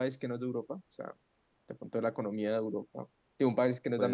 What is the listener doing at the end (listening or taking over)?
listening